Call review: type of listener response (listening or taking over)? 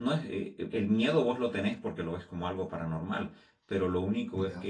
listening